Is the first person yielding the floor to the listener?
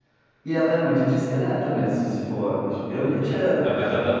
Yes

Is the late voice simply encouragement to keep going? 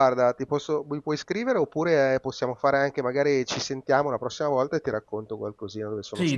No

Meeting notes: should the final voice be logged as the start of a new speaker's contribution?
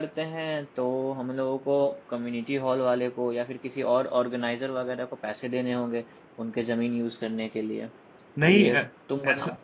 Yes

